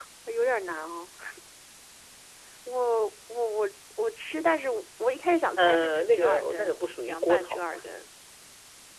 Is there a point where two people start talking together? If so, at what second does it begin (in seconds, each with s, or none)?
5.6 s